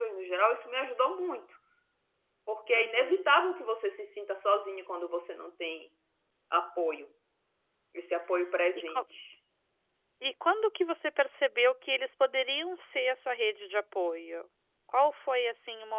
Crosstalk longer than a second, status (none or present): none